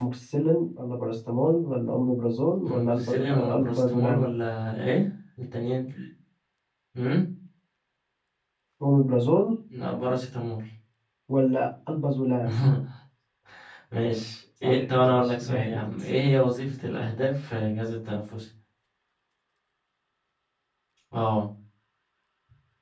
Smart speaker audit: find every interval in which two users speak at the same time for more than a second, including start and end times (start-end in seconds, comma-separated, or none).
2.6-4.2, 14.6-15.8